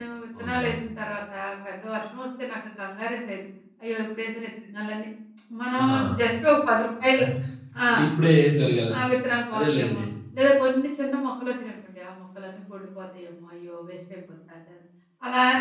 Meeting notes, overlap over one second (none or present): none